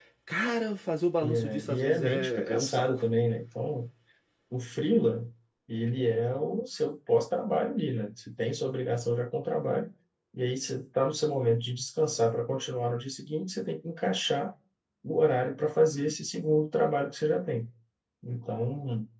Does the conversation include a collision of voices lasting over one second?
Yes, from 1.2 s

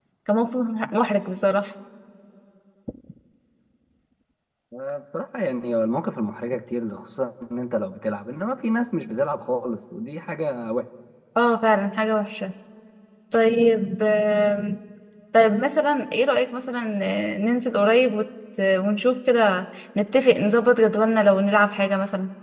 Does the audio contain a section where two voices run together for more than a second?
No

